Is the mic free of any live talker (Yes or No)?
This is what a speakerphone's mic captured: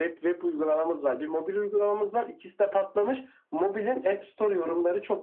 Yes